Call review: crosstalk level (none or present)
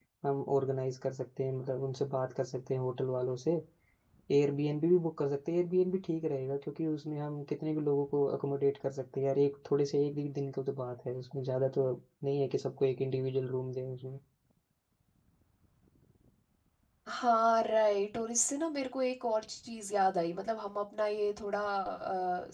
none